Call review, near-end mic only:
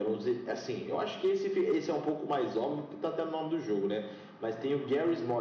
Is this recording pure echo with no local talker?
Yes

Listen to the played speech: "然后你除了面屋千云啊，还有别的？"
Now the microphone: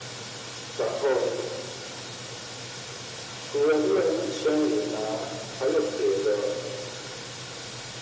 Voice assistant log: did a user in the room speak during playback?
No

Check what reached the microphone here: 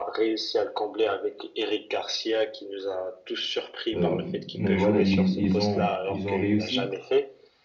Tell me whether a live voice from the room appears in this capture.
Yes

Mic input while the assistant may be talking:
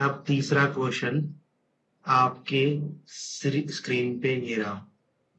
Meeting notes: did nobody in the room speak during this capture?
Yes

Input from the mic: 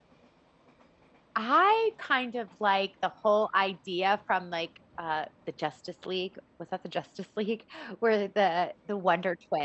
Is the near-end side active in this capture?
Yes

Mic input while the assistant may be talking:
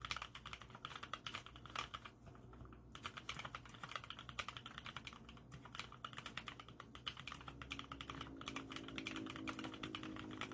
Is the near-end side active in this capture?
No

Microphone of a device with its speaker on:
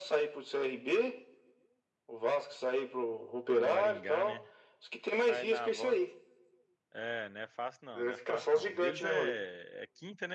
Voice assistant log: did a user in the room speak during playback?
Yes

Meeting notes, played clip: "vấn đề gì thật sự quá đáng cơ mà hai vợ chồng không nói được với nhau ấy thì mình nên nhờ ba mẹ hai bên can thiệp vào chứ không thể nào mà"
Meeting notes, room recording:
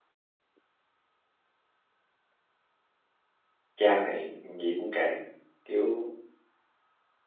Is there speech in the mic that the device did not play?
Yes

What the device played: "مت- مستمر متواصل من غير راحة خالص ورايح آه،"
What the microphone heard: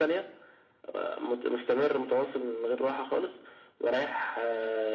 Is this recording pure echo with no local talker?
Yes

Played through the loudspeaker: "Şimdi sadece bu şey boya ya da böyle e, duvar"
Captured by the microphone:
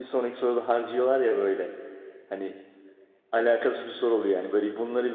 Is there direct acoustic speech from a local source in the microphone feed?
Yes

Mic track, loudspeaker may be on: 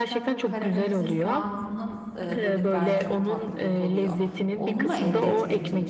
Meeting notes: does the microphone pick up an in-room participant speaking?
Yes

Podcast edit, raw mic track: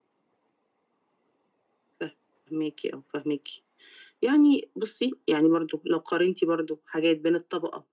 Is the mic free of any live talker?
Yes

